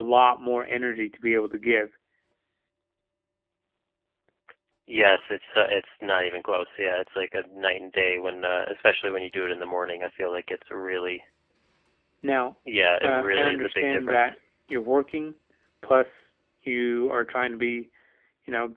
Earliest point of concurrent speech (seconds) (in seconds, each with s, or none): 13.0 s